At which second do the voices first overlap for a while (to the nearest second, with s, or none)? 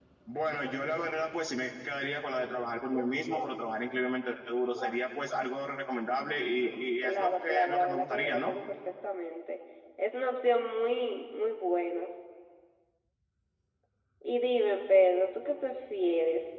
7 s